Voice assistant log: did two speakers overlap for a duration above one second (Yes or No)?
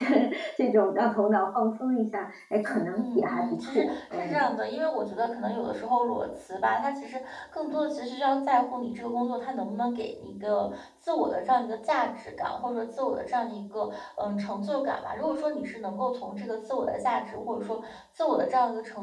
Yes